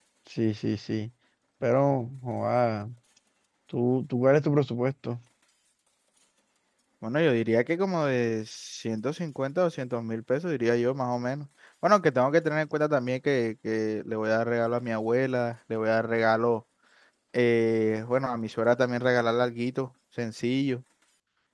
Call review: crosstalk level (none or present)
none